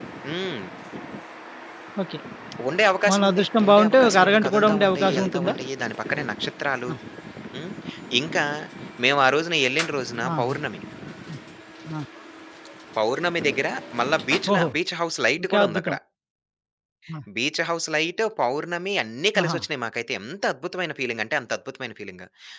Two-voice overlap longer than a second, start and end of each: 3.1-5.5

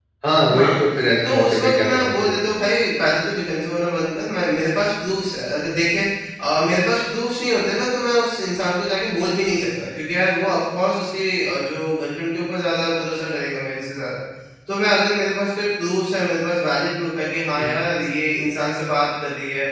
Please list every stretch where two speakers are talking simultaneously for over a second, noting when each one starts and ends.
1.2-2.4

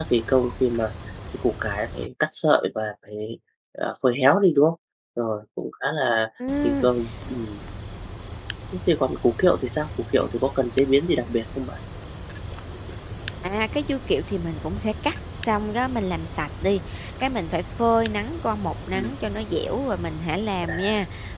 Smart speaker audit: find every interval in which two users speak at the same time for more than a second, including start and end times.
none

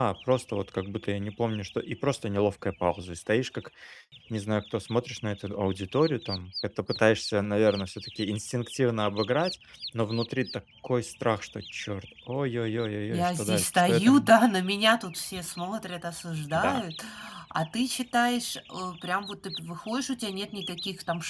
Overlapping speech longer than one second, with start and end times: 13.1-14.3

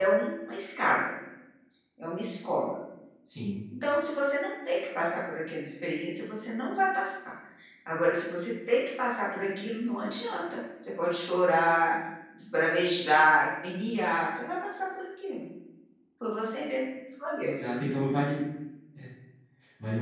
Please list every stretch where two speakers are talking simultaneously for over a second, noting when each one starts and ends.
none

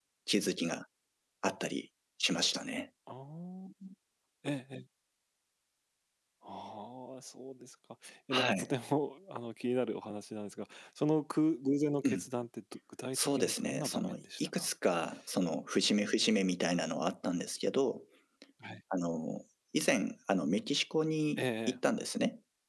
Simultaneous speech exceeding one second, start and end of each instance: 13.1-14.7

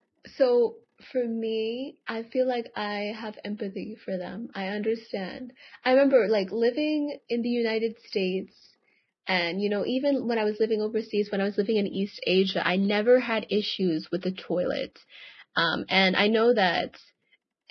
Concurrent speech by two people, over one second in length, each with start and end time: none

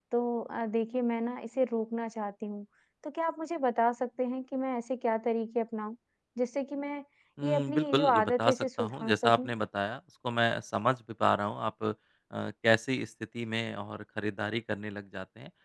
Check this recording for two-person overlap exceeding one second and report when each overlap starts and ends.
7.4-9.5

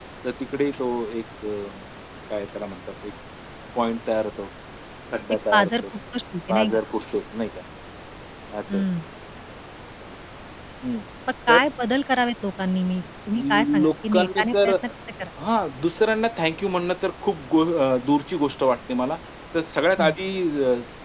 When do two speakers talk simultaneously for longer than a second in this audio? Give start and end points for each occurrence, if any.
13.4-14.7

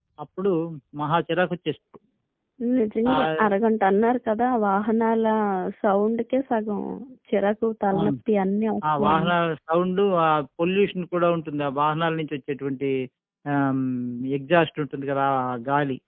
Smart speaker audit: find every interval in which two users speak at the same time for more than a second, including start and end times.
none

